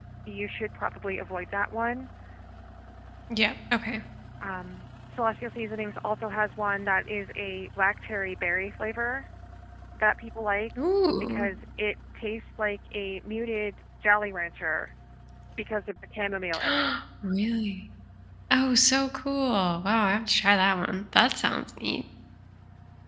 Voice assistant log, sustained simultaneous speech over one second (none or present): none